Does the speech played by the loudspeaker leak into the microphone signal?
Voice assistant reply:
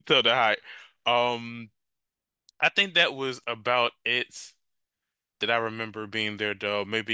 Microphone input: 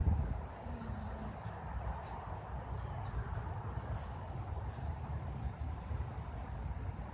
No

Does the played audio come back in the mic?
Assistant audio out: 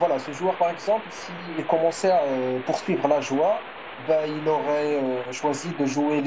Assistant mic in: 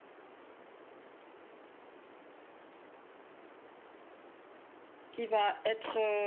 No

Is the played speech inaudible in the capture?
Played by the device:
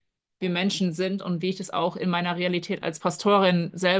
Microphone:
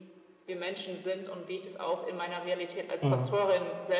No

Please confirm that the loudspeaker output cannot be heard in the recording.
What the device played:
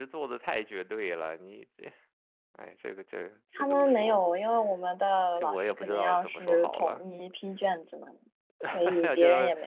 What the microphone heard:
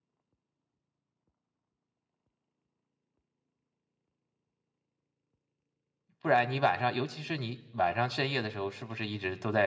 Yes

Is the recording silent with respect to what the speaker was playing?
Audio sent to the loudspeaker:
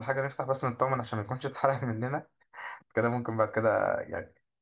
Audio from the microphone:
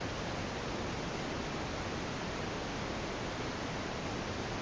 Yes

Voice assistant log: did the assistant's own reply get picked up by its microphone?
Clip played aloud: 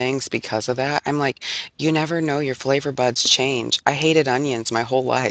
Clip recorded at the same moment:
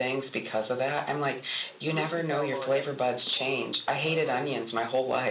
Yes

